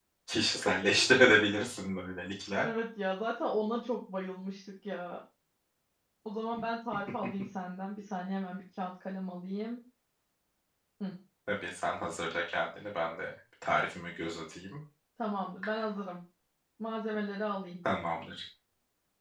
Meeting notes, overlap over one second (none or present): none